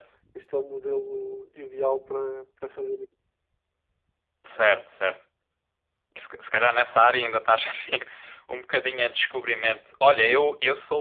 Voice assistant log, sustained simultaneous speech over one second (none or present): none